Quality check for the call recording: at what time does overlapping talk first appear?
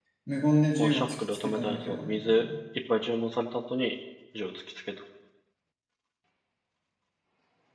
1 s

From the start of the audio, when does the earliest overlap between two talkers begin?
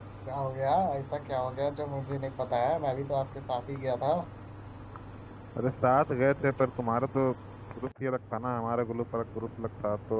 none

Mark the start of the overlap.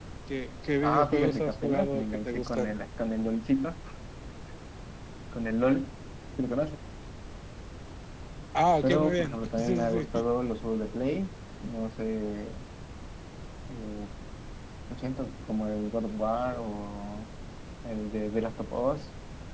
1 s

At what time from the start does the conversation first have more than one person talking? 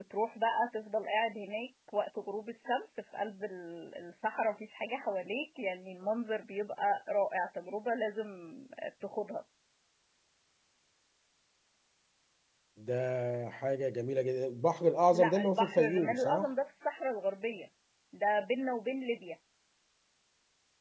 15 s

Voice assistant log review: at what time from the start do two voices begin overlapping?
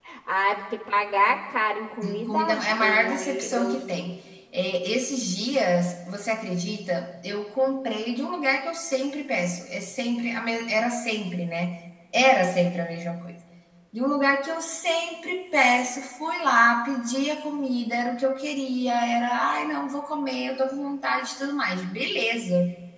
2 s

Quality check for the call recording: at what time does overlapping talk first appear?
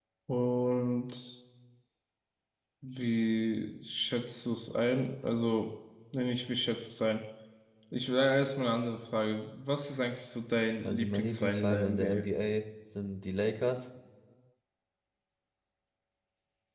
11 s

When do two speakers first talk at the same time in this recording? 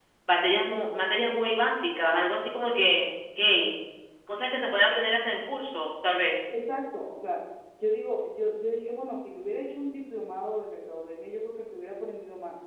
none

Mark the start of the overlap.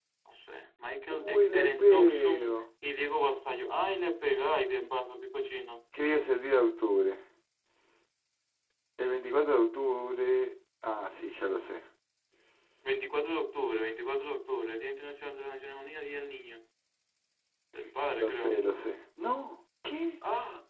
1 s

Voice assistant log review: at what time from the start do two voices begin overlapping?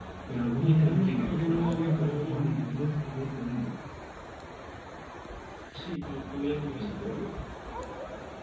1 s

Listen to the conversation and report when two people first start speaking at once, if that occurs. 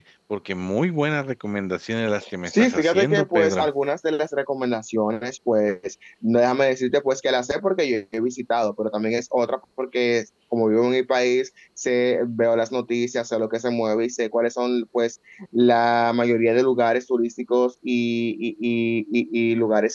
2 s

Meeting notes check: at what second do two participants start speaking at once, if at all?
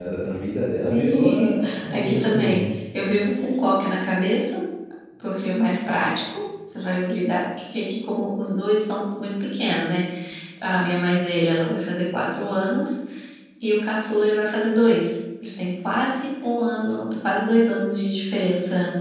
1 s

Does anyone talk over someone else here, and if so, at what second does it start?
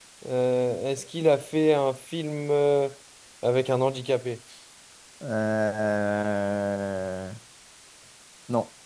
none

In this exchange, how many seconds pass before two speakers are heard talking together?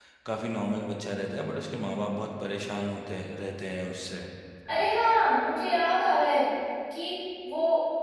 none

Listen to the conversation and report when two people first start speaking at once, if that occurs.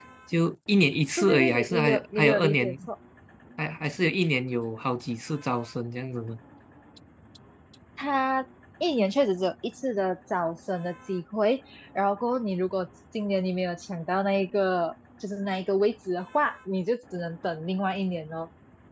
1 s

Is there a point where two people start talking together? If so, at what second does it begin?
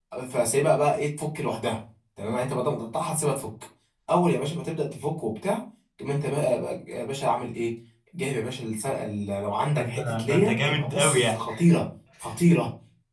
10 s

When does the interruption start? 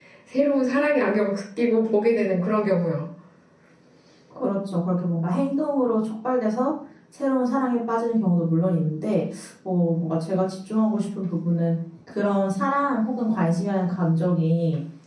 none

